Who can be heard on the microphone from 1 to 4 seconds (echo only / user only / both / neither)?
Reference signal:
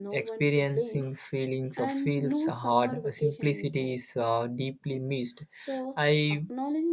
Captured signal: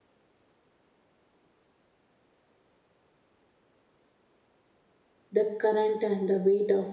neither